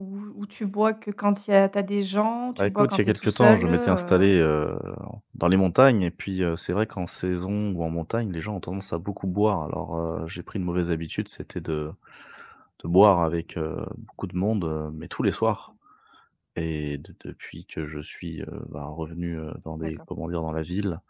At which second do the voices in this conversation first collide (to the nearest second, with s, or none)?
3 s